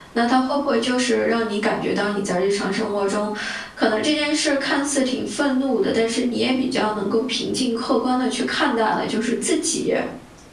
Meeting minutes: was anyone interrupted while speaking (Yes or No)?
No